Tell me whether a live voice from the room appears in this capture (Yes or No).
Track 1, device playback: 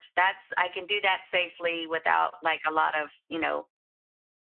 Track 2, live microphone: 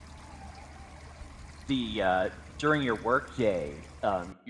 Yes